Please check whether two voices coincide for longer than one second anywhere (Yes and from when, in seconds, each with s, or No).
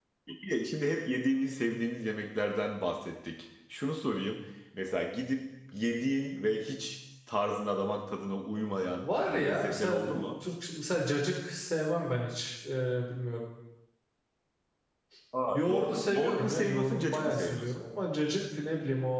Yes, from 9.0 s